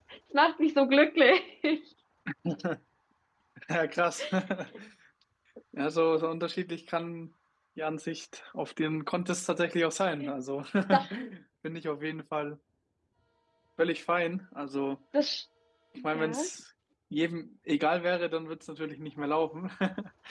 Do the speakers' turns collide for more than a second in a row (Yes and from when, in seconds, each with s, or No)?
No